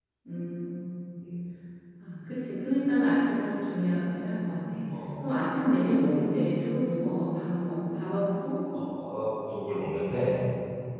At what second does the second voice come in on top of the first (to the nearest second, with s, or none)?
none